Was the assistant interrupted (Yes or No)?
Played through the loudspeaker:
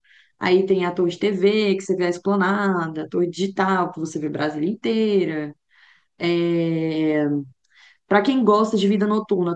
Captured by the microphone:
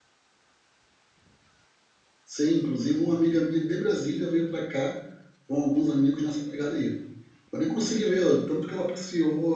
Yes